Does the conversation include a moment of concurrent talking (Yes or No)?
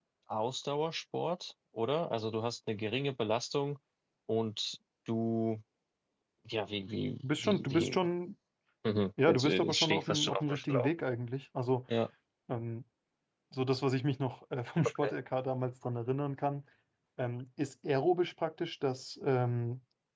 Yes